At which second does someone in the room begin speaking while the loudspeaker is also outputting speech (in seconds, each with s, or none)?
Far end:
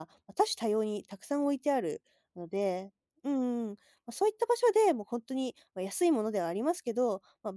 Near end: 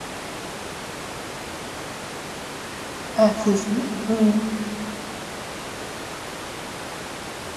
3.1 s